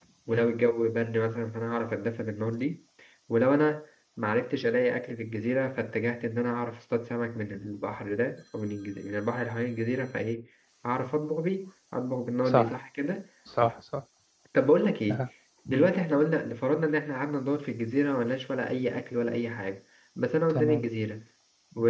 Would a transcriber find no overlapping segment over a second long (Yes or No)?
Yes